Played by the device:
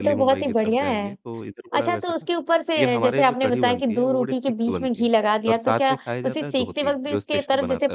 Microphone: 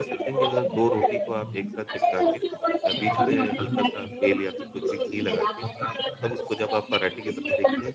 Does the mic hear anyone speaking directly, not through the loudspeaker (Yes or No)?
Yes